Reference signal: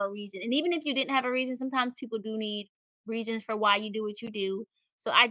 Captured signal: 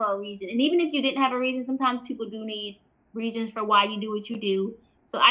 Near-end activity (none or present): none